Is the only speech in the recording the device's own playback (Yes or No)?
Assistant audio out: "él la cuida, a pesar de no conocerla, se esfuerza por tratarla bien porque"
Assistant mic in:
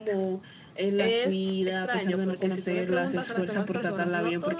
No